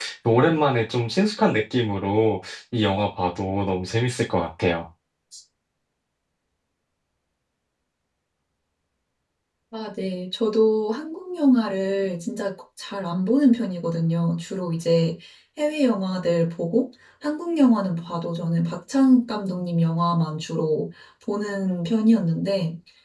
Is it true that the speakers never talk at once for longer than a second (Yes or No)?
Yes